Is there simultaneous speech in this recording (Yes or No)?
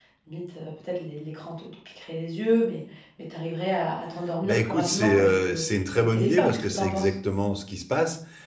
Yes